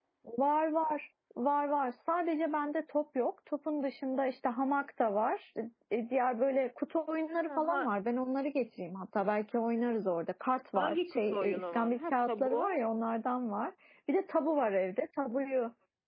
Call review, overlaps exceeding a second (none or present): present